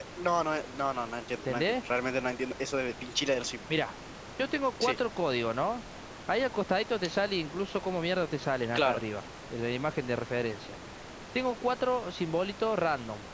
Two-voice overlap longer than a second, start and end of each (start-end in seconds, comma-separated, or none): none